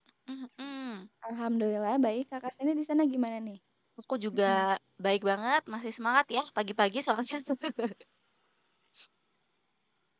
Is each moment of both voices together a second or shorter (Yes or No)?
Yes